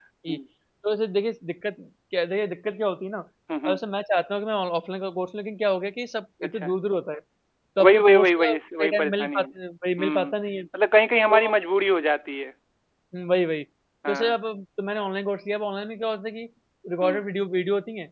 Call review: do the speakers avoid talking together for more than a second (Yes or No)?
No